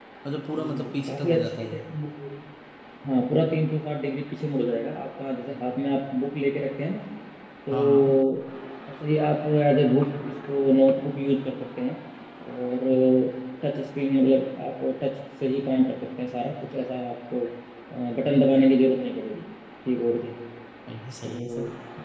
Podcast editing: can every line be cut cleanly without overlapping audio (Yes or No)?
No